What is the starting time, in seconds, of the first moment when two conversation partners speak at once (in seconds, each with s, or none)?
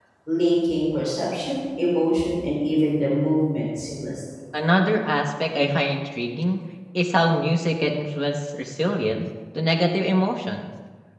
none